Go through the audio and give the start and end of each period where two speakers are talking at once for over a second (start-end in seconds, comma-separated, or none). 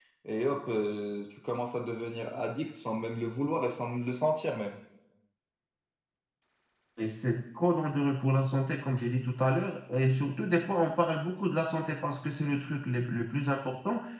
none